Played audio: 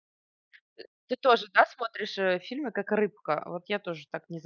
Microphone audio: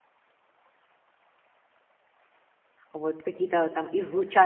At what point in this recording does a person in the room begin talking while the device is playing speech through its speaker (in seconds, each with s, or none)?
2.9 s